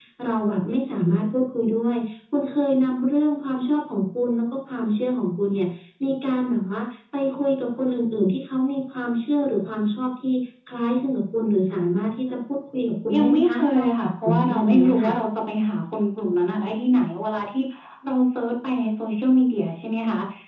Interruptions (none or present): present